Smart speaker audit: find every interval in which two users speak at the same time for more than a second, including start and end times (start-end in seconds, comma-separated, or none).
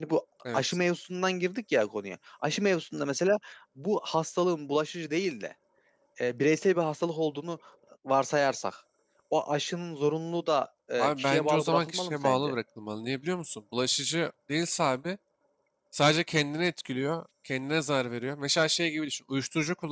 11.0-12.5